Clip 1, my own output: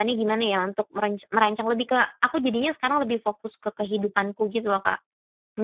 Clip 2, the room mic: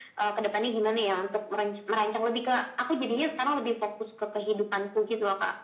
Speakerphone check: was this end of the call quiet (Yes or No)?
Yes